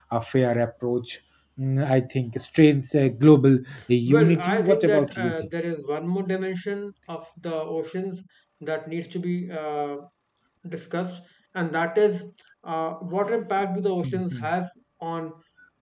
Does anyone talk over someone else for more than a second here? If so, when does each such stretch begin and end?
4.1-5.5

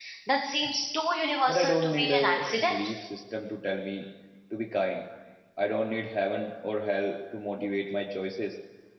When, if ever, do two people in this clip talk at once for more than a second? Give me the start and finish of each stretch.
1.5-2.8

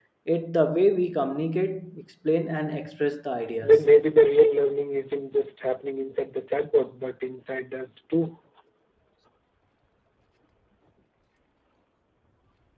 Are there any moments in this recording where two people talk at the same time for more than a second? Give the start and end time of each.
none

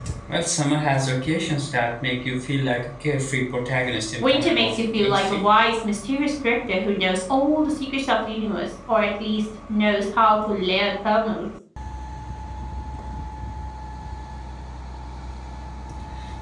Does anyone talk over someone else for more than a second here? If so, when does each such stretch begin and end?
4.2-5.5

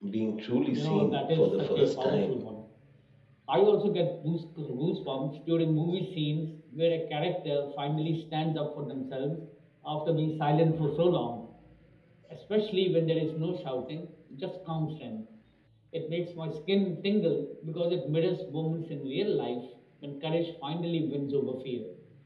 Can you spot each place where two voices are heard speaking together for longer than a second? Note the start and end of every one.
0.7-2.3

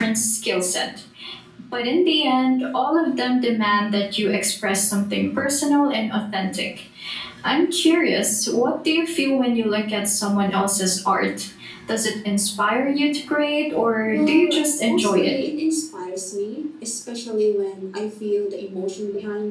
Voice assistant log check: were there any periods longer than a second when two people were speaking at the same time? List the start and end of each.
14.1-15.3

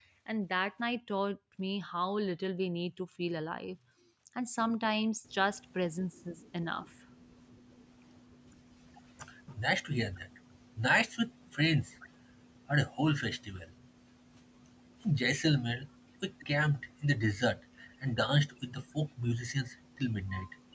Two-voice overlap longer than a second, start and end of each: none

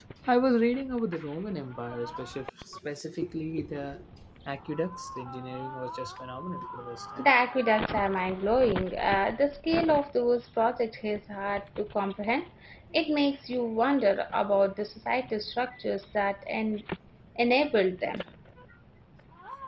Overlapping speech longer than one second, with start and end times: none

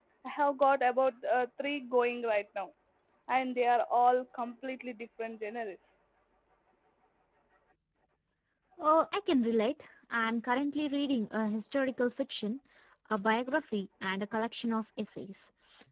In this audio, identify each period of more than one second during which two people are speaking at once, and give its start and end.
none

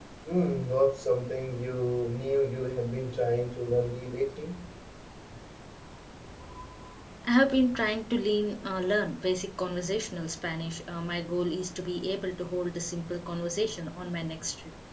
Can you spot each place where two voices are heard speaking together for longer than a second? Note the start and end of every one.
none

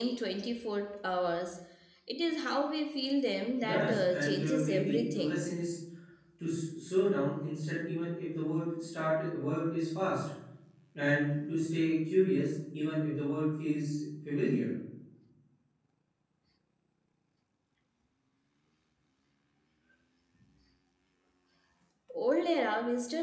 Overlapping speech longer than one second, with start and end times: 3.6-5.5

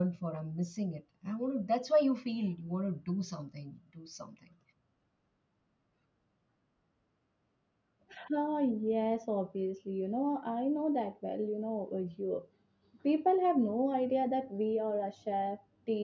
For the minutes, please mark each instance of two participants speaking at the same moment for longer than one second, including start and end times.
none

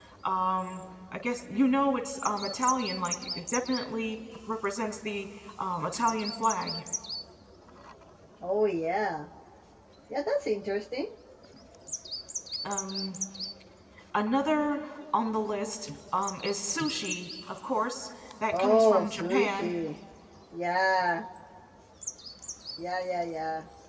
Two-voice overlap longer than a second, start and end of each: 18.5-19.7

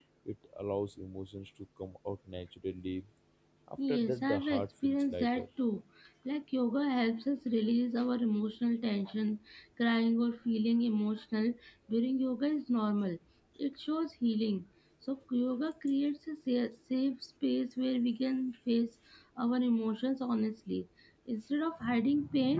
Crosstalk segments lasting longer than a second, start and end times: 3.9-5.4

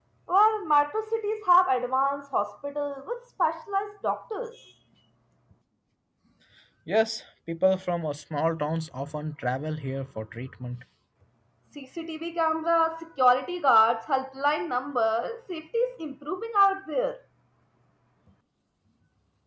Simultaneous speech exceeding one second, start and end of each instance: none

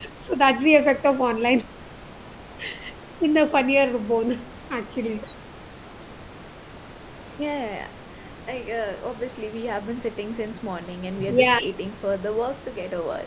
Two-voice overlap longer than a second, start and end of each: none

